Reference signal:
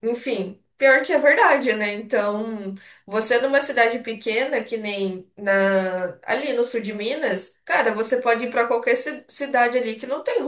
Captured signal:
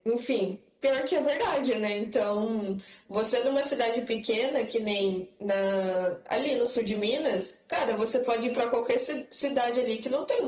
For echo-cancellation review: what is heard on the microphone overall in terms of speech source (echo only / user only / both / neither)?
echo only